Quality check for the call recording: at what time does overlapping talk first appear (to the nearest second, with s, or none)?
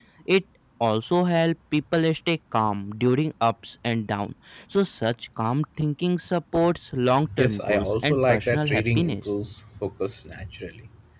7 s